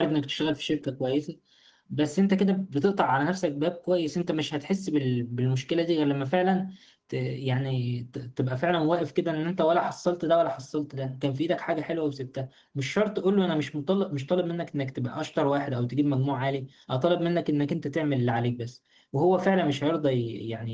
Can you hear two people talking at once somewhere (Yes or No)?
No